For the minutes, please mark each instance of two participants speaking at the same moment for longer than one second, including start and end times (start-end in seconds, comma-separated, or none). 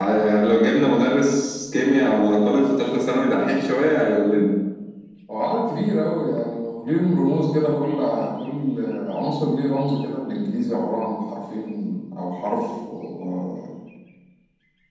none